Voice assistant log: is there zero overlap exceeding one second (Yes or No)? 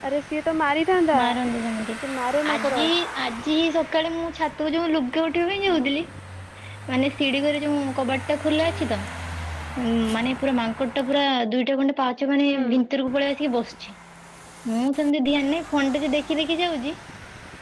Yes